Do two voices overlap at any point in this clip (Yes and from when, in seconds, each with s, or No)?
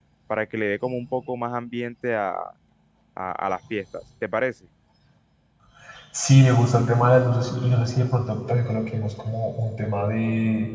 No